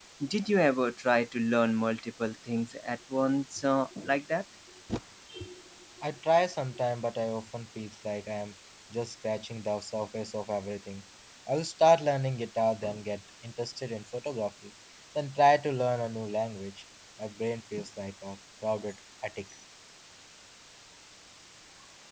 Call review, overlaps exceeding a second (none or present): none